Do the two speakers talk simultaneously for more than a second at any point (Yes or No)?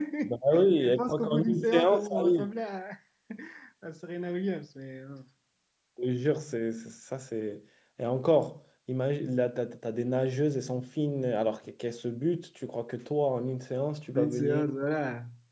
Yes